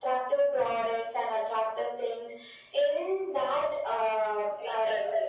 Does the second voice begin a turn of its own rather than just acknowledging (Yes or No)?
Yes